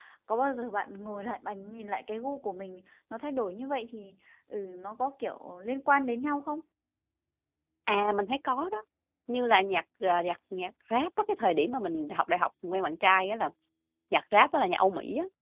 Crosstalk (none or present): none